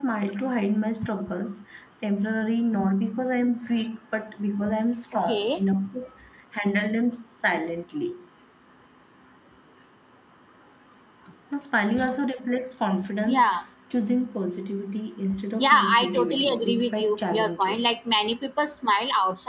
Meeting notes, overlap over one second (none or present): present